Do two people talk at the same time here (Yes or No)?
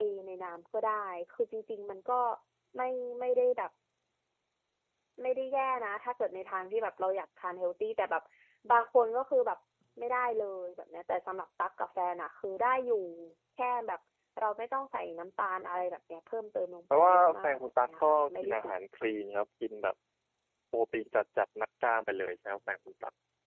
Yes